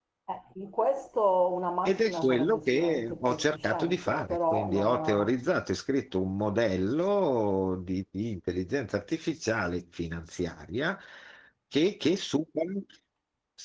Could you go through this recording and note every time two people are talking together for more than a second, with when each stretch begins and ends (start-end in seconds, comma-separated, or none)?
1.8-5.3